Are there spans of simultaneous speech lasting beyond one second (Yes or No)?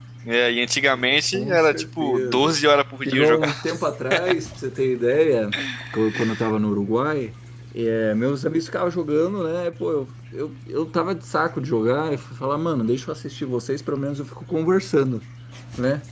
Yes